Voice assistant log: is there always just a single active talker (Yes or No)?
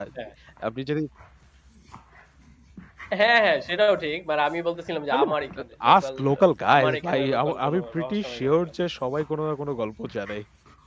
No